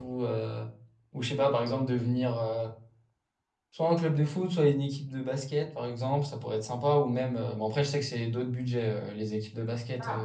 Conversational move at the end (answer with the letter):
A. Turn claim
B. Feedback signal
B